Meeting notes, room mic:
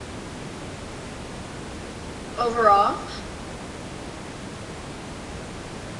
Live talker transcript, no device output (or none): overall.